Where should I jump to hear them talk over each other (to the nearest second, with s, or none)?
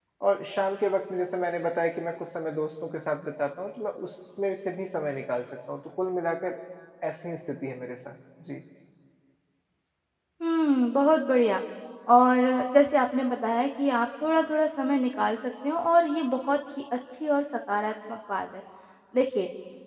none